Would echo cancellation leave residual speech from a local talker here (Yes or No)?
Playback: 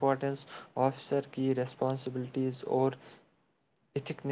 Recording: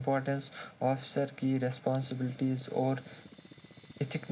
No